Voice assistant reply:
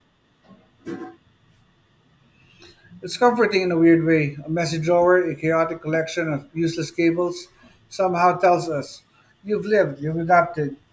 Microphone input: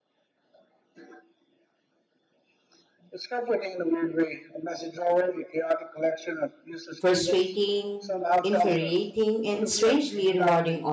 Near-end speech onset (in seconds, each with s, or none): 7.0 s